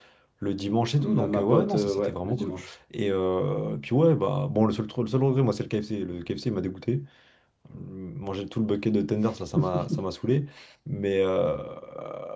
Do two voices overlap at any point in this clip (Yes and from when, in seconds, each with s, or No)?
Yes, from 1.1 s